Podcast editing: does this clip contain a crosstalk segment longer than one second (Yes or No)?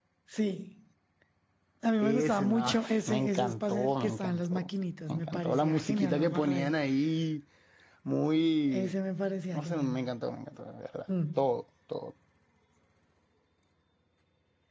Yes